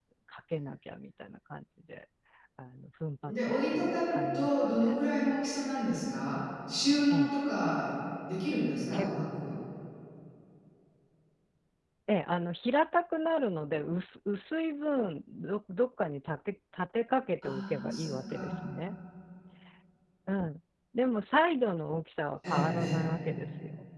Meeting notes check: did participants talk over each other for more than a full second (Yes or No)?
Yes